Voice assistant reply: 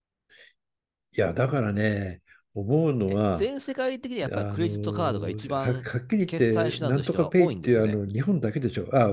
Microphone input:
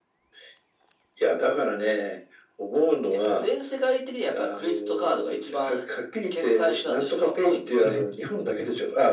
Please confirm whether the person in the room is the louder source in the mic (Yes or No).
No